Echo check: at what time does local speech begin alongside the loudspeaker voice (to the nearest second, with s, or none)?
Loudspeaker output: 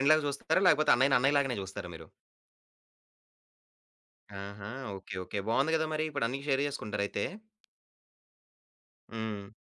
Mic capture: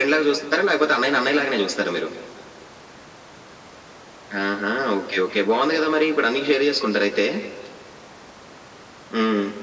none